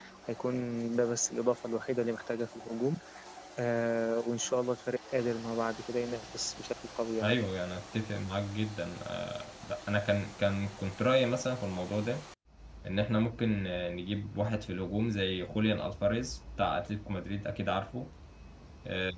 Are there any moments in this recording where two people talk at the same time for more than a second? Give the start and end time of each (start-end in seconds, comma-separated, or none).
none